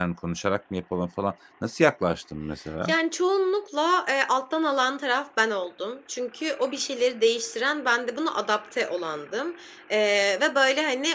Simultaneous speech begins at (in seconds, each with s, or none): none